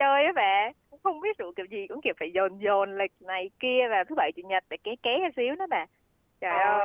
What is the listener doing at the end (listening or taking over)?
taking over